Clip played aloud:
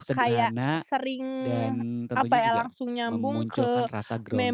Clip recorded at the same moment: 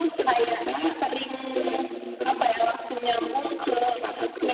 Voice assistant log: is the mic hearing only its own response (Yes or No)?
Yes